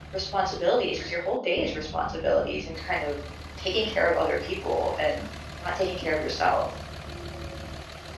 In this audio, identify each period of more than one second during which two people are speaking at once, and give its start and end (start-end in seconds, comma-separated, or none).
none